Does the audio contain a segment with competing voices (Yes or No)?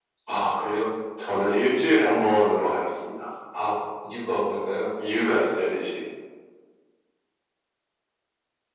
No